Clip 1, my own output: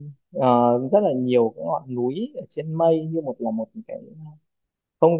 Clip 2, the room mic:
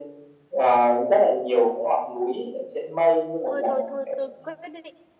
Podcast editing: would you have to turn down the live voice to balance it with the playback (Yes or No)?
No